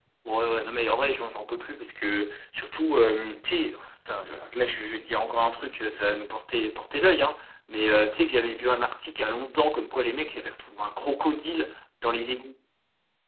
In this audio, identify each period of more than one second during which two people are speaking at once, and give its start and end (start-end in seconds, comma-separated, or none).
none